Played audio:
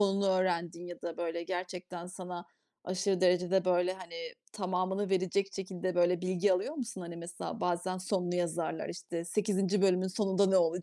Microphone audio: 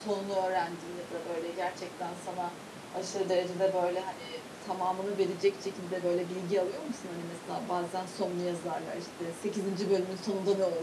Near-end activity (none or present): none